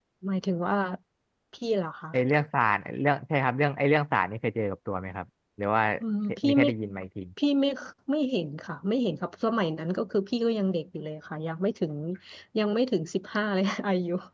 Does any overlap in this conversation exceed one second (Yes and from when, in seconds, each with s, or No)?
No